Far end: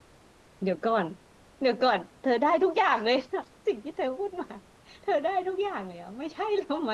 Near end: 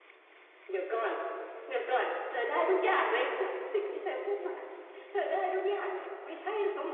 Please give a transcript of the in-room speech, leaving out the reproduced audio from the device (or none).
none